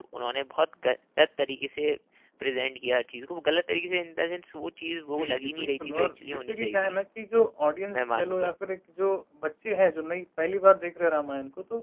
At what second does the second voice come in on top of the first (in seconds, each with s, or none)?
5.1 s